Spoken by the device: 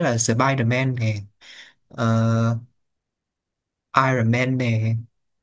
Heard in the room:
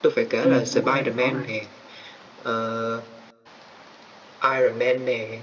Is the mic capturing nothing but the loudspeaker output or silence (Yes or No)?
No